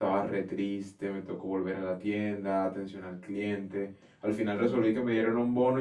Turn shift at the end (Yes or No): No